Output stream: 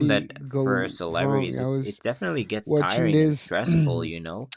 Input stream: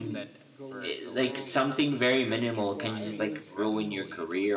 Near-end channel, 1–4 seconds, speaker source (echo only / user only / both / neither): both